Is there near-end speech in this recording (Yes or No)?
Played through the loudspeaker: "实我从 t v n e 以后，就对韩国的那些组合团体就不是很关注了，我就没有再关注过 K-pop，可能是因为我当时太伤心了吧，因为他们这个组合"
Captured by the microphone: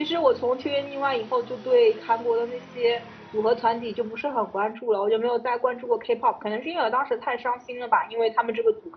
No